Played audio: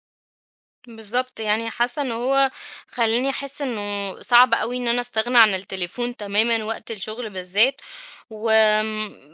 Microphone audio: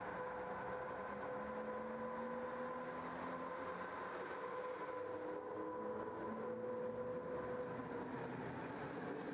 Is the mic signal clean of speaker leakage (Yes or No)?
Yes